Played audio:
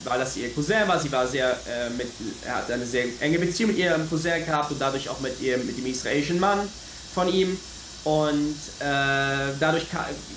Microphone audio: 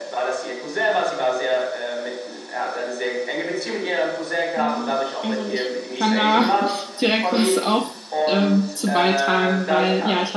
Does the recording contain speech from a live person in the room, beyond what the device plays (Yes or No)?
Yes